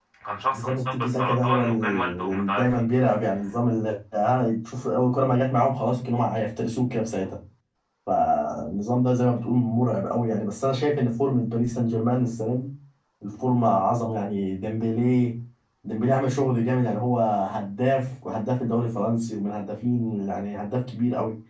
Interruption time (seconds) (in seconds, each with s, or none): 0.5 s